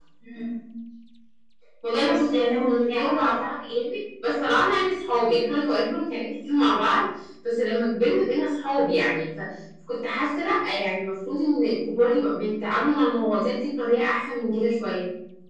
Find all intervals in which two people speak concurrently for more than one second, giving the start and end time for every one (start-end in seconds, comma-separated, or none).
2.0-3.5